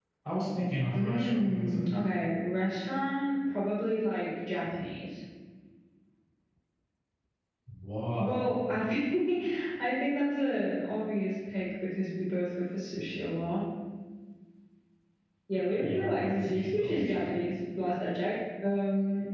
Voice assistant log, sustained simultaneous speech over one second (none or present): present